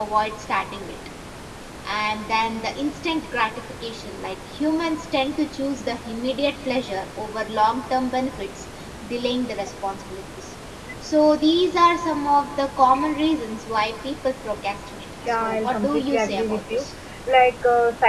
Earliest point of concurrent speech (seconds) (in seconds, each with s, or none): 15.2 s